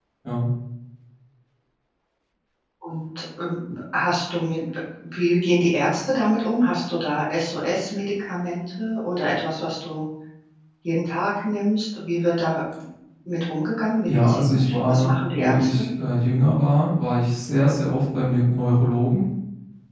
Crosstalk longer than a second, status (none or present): present